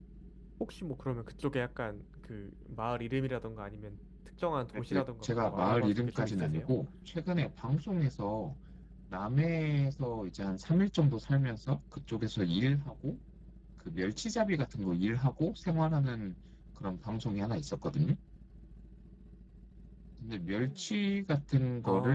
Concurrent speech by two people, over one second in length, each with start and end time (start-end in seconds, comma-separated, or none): 4.7-6.7